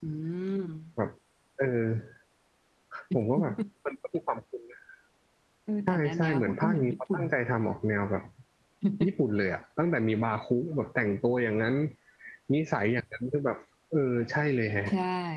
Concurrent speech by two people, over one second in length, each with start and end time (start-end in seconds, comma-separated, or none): 5.9-7.2